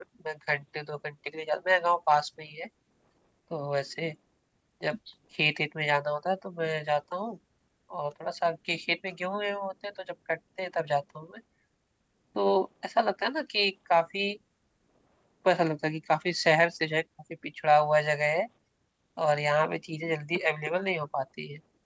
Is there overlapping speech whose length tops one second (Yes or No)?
No